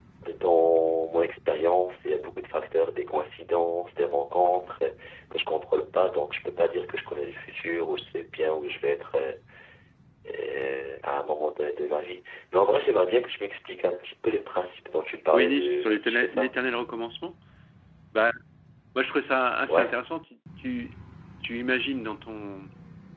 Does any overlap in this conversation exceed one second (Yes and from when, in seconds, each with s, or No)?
Yes, from 15.3 s